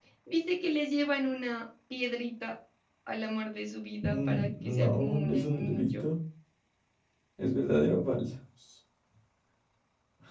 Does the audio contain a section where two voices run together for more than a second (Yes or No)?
Yes